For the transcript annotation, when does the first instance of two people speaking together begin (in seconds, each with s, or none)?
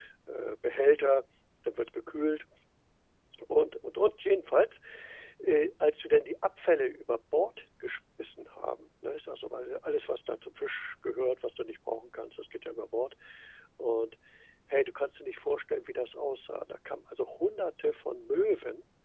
none